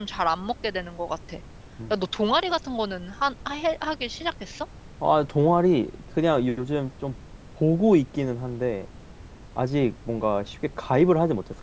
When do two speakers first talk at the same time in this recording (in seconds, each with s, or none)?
none